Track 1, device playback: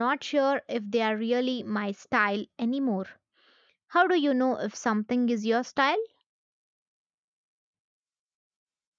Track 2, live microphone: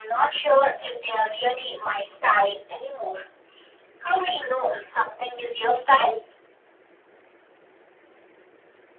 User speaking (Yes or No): No